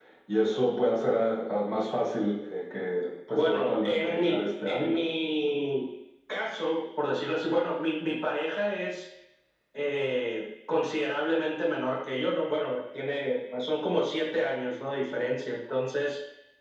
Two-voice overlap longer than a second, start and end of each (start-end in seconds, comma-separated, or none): 3.4-5.0